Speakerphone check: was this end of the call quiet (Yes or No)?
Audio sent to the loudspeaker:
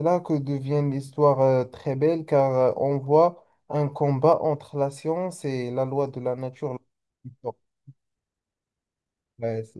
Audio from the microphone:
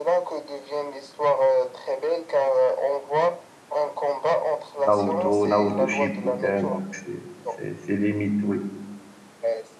No